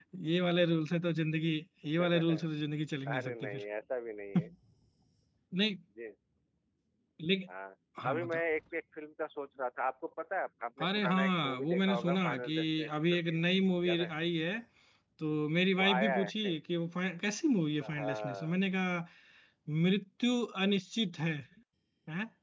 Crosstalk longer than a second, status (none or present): present